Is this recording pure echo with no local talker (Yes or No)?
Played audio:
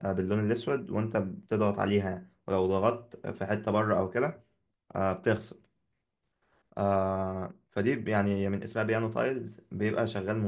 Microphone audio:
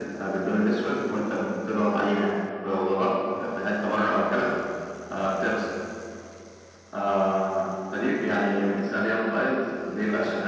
Yes